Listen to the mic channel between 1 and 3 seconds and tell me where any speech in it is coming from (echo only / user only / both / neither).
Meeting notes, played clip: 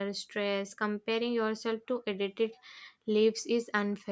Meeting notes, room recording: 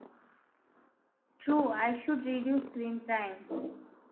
user only